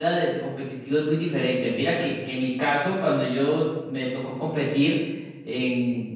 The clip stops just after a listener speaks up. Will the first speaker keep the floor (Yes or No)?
Yes